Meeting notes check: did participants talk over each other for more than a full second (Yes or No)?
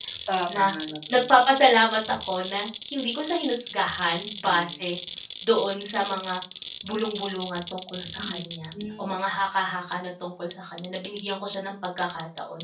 No